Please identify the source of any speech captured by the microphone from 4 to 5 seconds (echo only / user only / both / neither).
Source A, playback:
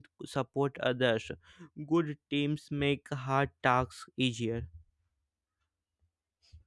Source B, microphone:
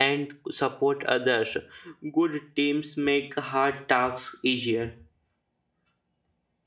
echo only